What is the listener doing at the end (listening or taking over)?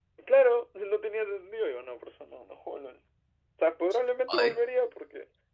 listening